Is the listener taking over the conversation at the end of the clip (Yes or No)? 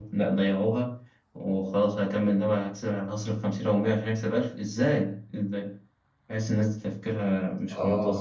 Yes